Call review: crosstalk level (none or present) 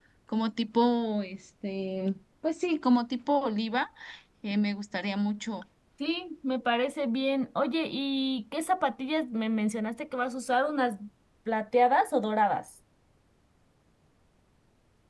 none